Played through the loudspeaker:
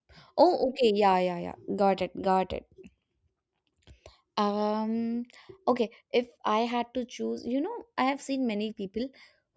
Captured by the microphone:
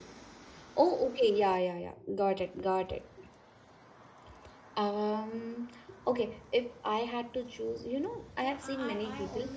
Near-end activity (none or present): present